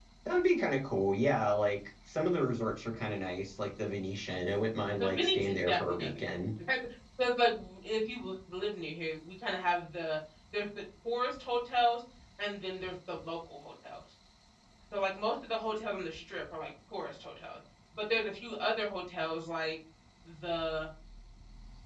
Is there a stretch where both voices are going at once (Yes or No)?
Yes